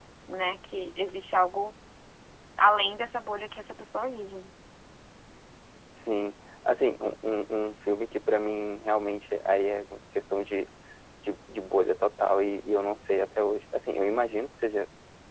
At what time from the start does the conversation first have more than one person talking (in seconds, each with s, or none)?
none